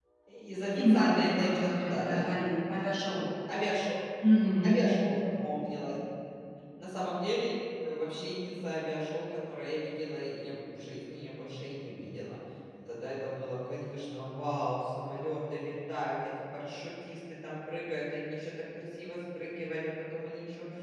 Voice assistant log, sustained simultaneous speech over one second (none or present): present